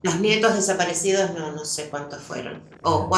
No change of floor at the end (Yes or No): Yes